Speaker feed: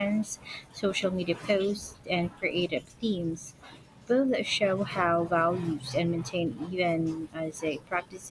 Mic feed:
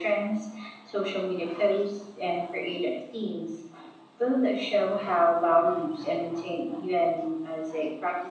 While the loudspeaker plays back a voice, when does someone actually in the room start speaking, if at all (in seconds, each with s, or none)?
none